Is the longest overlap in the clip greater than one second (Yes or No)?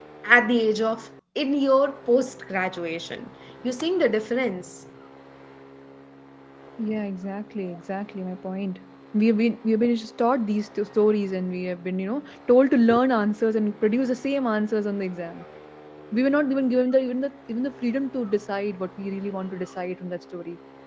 No